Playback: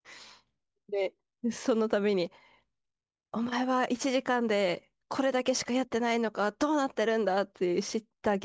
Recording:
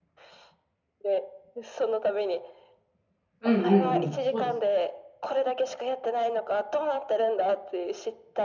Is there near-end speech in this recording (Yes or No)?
Yes